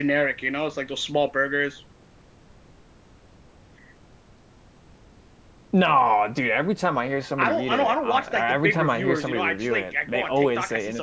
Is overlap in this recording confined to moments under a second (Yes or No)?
No